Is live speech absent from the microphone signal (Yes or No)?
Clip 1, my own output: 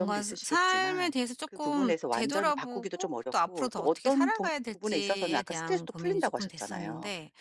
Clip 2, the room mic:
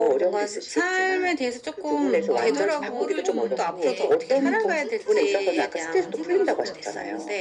No